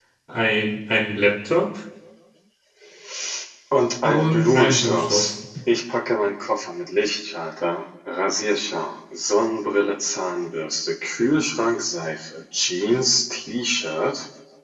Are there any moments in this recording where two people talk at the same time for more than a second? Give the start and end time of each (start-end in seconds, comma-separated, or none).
4.0-5.3